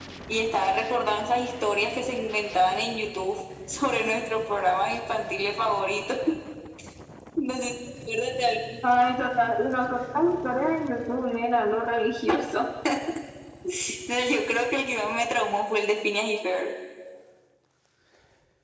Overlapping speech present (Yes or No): No